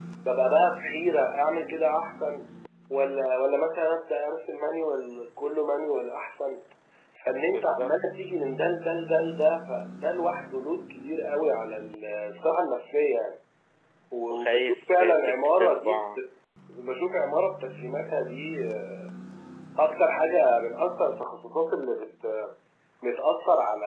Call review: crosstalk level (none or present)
present